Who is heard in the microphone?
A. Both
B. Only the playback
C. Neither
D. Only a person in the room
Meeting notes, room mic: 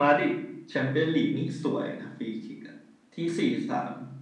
B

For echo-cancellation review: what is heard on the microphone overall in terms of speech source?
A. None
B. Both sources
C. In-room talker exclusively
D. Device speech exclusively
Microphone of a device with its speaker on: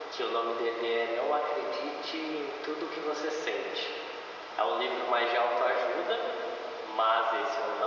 D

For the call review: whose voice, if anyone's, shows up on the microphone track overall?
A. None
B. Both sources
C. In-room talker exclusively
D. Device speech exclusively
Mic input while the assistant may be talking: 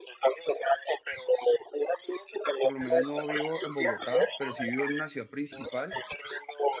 B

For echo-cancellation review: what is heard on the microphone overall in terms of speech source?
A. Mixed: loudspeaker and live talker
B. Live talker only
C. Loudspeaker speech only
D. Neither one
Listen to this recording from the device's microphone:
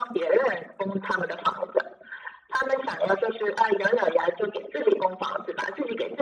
C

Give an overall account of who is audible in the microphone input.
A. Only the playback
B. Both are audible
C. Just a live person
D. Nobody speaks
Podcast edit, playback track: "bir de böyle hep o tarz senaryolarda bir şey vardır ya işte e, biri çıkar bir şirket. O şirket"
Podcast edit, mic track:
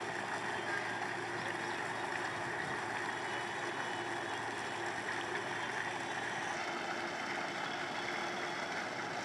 D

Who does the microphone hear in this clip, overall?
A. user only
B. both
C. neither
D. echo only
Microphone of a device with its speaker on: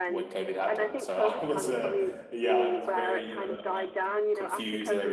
B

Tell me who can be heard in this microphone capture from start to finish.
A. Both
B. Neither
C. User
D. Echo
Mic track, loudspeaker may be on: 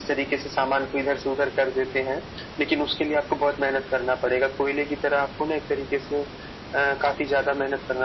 D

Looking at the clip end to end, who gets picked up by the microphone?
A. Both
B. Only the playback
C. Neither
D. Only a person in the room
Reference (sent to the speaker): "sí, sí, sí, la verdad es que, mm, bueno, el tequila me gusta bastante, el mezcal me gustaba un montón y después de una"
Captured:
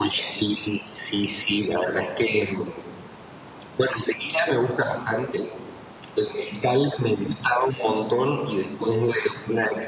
B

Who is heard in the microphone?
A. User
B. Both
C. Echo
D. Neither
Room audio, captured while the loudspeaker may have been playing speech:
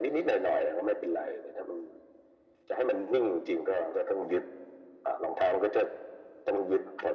C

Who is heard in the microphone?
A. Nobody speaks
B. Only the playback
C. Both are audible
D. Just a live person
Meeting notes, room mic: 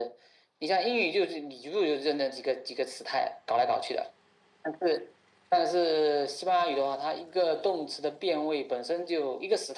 B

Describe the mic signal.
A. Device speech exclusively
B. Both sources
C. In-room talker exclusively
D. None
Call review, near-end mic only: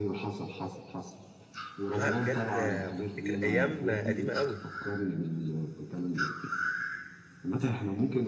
B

